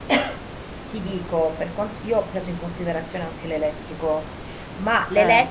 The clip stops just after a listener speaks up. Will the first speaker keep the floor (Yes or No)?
Yes